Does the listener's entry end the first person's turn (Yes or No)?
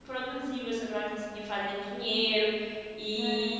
No